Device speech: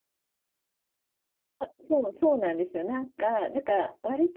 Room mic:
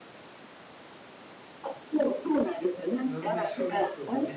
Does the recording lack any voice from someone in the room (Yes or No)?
No